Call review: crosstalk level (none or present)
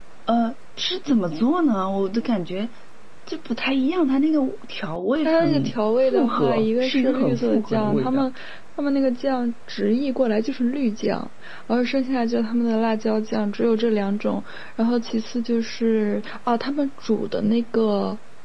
present